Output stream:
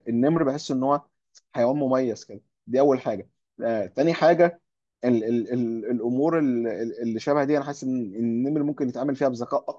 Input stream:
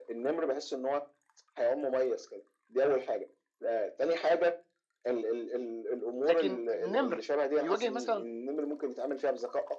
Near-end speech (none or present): present